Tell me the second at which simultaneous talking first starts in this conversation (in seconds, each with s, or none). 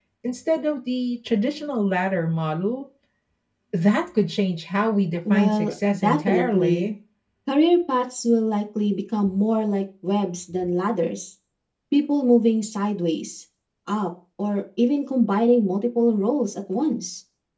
5.2 s